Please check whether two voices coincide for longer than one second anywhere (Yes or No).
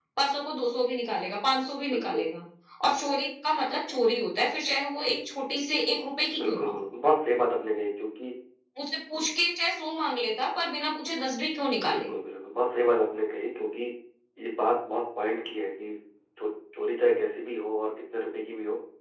No